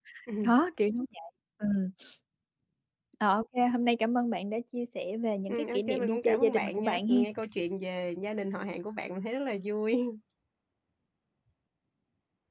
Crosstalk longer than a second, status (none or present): present